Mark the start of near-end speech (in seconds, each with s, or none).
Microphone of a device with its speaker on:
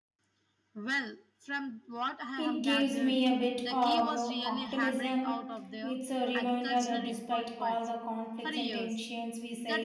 2.4 s